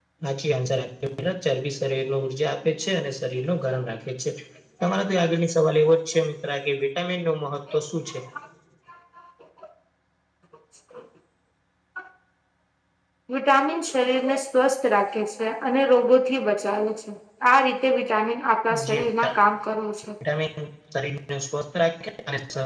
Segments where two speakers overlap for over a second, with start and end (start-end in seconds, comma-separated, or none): none